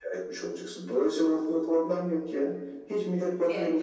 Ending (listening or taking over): taking over